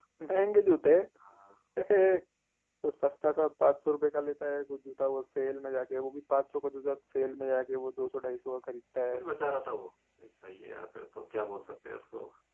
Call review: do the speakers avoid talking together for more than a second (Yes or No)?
Yes